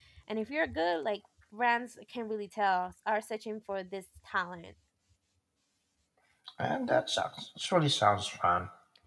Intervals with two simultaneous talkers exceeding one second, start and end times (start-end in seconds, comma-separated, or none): none